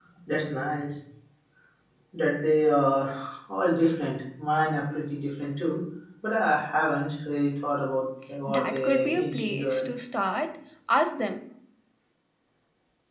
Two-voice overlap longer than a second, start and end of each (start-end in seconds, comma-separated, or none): 8.4-9.8